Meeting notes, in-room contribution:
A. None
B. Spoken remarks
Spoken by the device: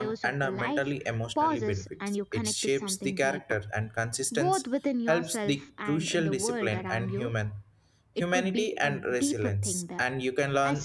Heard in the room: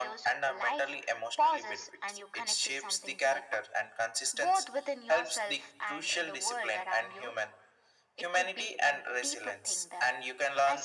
A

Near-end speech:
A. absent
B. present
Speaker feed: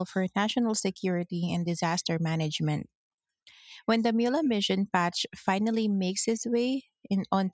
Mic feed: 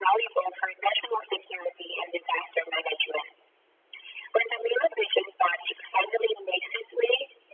A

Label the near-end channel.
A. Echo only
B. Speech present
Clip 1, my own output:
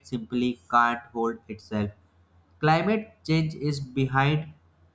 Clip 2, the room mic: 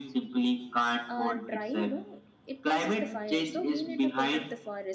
B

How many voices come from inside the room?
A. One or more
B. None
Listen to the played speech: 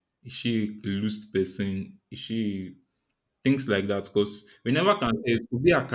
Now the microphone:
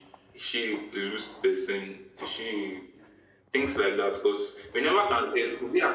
B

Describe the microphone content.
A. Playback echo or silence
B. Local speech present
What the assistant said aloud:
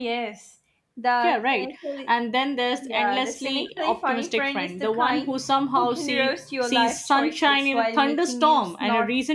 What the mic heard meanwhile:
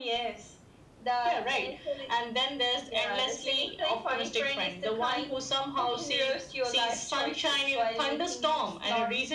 A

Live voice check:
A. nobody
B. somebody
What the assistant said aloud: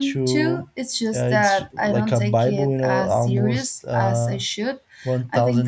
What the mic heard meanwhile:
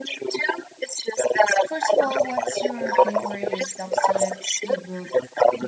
B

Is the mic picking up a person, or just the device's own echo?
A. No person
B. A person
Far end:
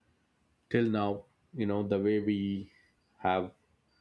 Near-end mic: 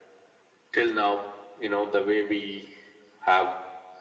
A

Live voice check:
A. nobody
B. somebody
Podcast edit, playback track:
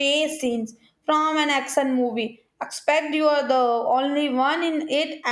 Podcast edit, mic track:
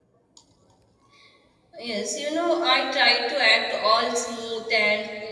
B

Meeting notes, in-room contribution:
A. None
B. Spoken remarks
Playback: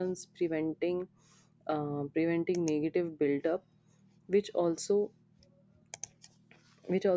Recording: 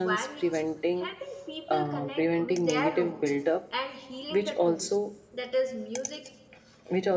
B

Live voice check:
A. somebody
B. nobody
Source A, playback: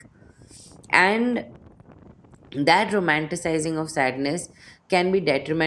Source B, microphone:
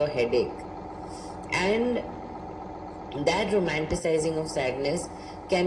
B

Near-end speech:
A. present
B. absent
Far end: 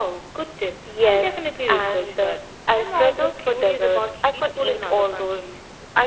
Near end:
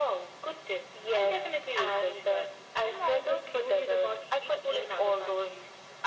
B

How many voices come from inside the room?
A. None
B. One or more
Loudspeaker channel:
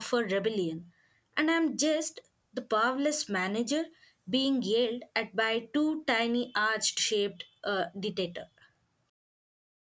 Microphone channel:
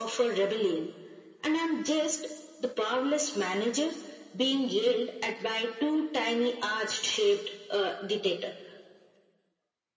A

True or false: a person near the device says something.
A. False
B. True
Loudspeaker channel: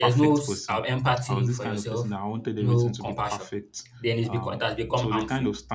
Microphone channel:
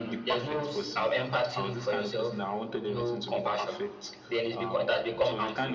A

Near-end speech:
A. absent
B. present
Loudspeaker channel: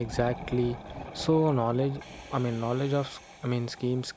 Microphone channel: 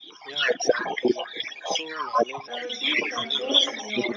B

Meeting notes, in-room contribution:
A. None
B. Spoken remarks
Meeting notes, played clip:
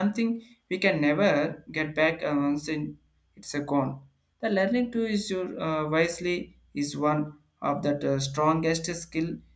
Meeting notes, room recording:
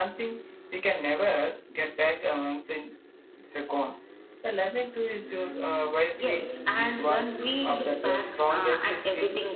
B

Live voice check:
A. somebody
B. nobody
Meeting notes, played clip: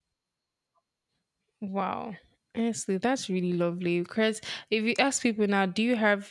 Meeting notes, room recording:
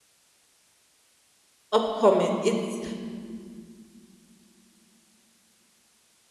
A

